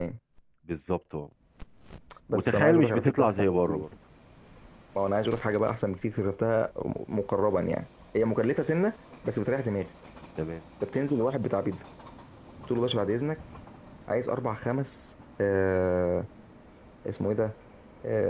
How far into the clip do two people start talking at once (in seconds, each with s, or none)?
2.3 s